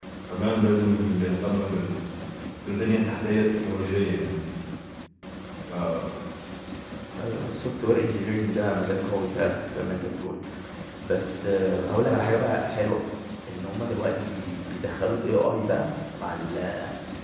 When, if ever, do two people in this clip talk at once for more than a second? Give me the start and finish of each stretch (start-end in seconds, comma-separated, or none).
none